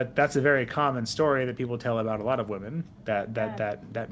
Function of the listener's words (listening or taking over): listening